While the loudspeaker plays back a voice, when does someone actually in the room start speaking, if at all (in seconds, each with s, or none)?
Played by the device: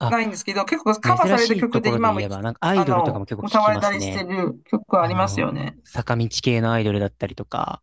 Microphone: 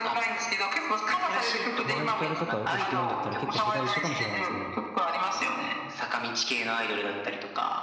1.8 s